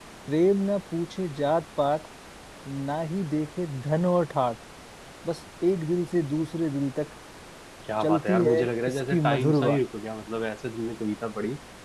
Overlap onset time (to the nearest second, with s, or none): 8 s